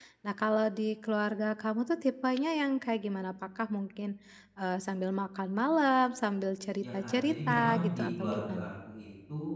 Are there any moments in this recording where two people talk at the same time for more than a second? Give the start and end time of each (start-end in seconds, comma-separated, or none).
6.8-8.7